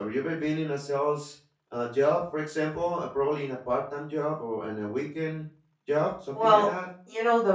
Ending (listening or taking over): taking over